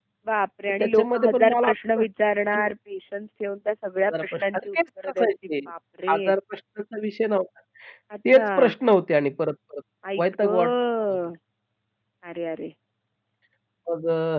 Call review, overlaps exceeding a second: present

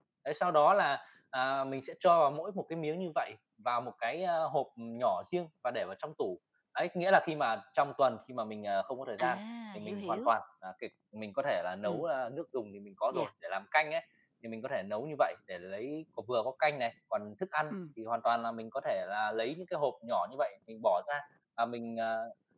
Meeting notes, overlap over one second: none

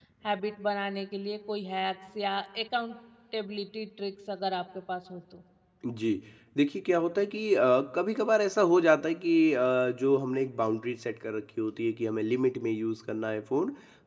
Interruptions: none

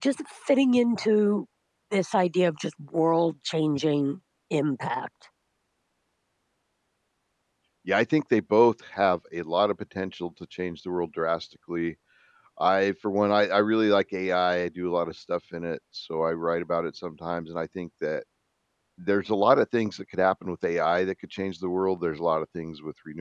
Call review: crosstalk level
none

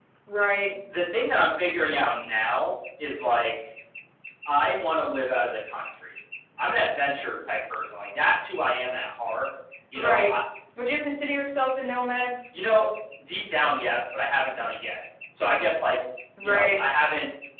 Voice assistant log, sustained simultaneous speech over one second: none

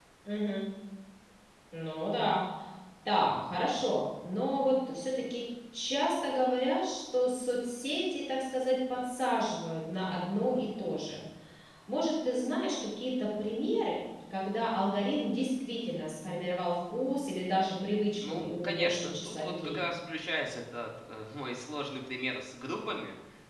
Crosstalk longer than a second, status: present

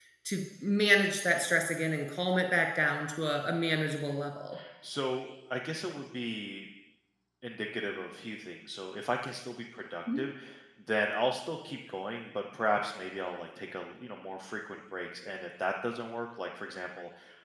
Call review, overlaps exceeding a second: none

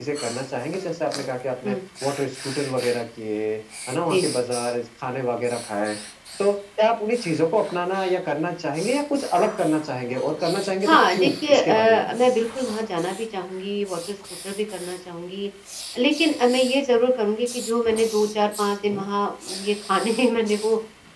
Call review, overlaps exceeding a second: present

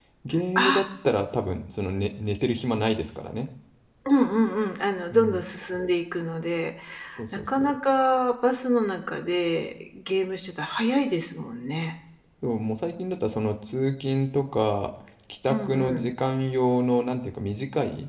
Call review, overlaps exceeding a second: none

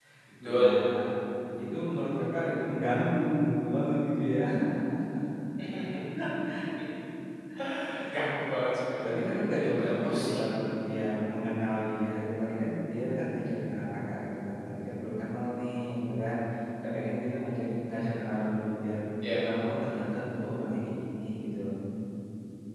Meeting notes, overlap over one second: present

